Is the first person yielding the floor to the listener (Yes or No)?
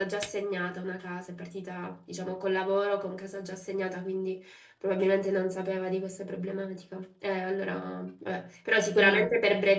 No